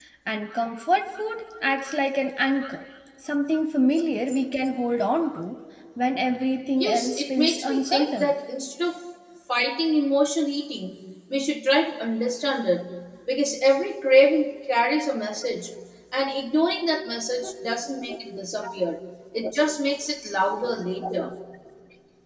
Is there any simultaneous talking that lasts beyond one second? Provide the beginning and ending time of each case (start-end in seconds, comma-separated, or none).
6.8-8.3